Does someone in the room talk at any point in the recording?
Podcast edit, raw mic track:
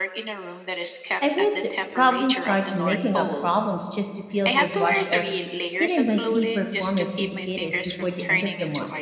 Yes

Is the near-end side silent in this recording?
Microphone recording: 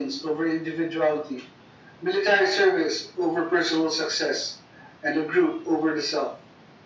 Yes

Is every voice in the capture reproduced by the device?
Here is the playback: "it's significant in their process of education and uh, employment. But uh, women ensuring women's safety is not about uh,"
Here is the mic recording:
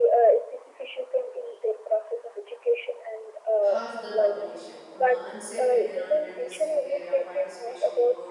No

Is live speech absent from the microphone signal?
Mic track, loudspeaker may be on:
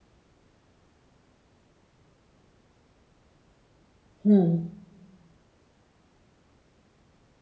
No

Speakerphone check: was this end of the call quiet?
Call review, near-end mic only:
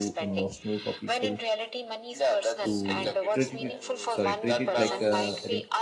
No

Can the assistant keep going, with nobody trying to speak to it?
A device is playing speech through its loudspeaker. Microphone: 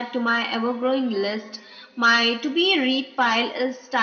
Yes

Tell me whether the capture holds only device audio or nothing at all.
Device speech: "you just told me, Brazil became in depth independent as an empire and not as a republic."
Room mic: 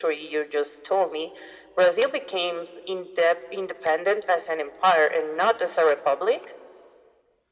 Yes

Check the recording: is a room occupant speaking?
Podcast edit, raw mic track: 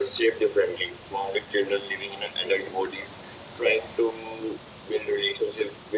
No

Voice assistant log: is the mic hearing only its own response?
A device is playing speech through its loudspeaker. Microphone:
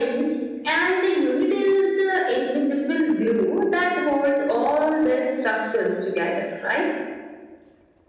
Yes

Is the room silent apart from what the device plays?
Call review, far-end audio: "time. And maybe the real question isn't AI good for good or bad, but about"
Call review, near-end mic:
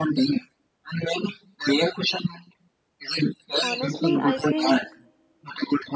No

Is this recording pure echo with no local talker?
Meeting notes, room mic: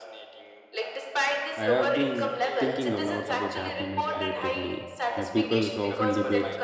No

